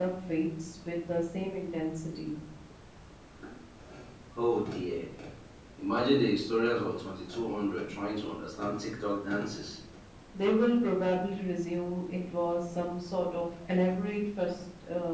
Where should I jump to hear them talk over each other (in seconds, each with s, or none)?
none